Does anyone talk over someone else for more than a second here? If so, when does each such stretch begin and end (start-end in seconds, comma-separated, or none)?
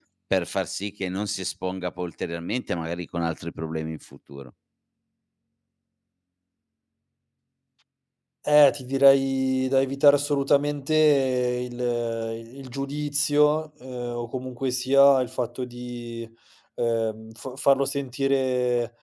none